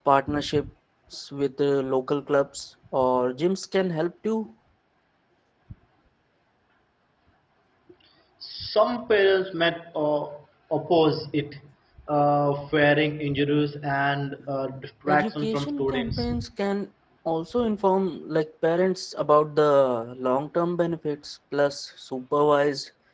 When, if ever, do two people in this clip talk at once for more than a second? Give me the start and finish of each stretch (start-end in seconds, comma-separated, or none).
15.1-16.3